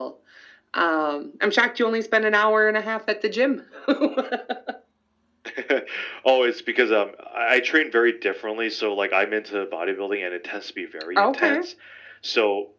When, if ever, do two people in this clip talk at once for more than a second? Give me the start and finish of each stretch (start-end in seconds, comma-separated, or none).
none